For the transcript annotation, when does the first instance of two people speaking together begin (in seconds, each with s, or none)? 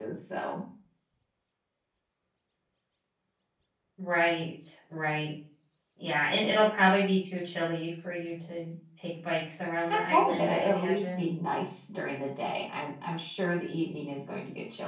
9.9 s